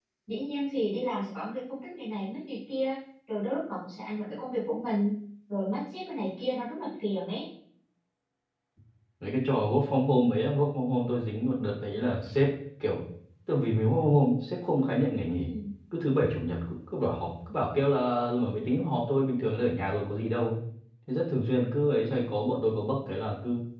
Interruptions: none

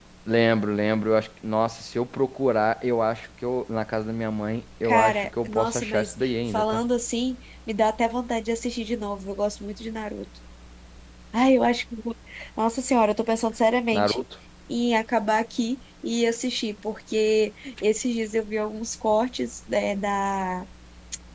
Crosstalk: present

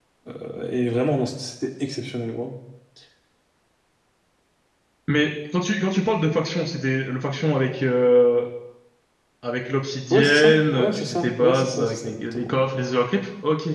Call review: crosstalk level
present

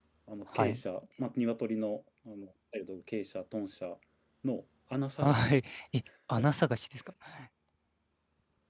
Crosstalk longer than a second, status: none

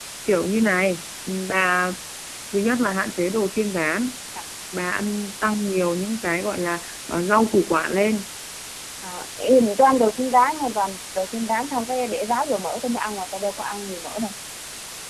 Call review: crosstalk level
none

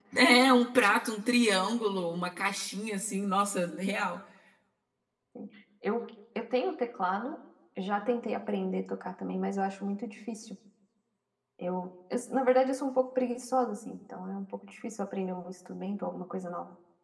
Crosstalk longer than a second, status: none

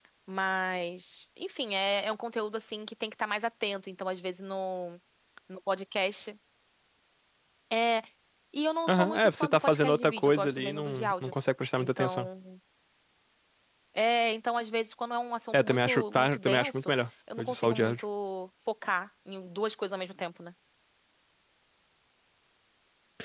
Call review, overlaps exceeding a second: present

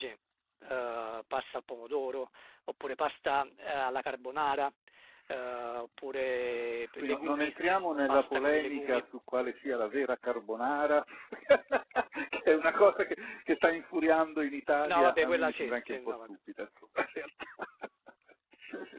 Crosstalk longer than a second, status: present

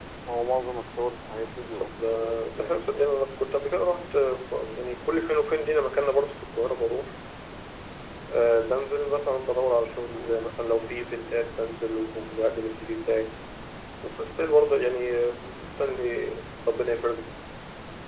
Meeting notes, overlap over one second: present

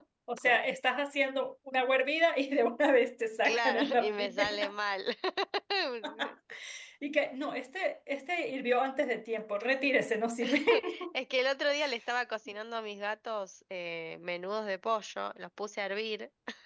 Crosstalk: present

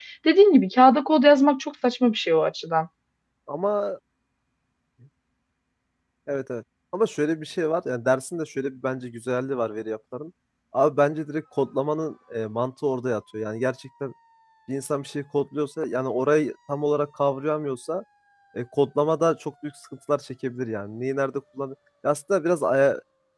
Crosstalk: none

